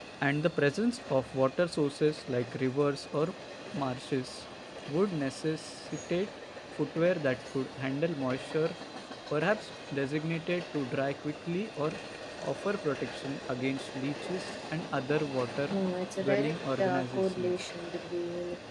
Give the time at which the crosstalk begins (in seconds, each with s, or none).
16.2 s